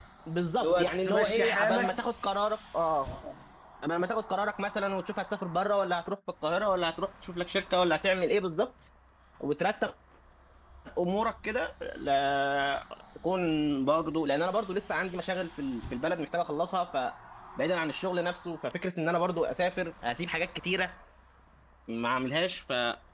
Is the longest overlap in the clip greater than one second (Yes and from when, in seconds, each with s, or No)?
Yes, from 0.6 s